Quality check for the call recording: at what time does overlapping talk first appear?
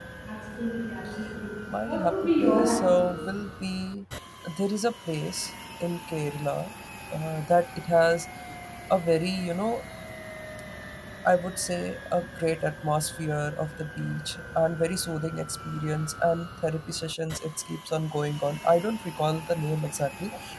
1.7 s

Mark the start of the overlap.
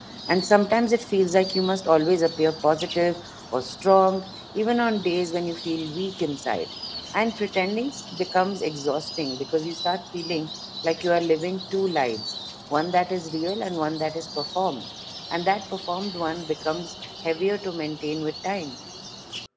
none

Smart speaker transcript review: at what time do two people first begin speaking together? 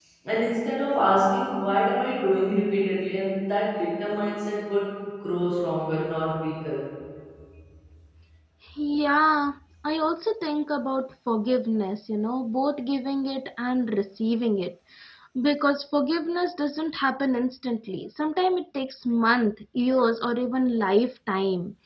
none

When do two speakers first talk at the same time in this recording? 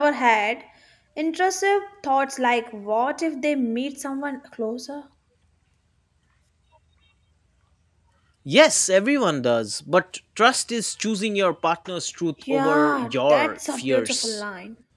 12.5 s

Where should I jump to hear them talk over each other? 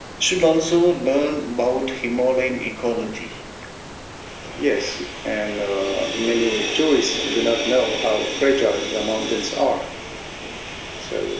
none

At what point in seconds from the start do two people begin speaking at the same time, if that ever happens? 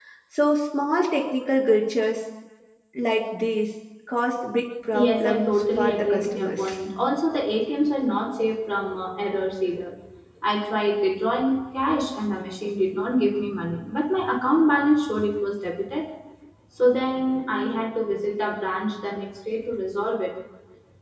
4.9 s

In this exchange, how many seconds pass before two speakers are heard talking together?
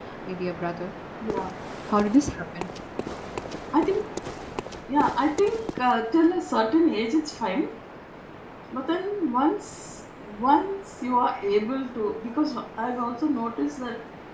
none

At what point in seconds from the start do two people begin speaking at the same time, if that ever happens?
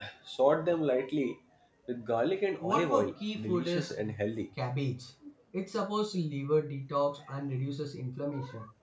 2.6 s

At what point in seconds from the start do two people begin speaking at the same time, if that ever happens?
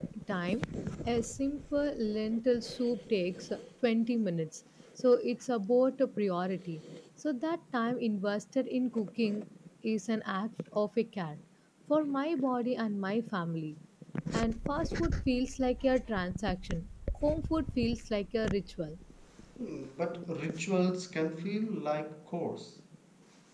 none

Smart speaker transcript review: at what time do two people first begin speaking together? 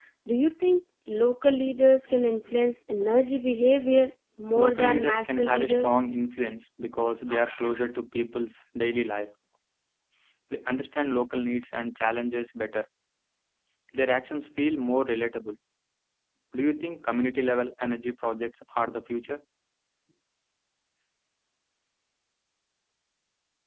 4.5 s

